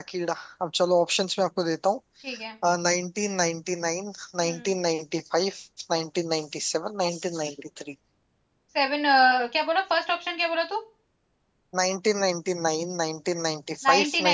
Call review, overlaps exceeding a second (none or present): none